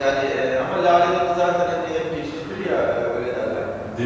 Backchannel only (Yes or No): Yes